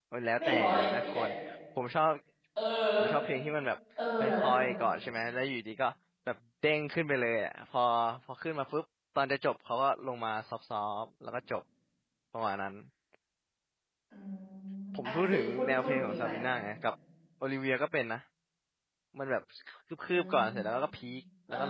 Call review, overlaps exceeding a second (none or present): present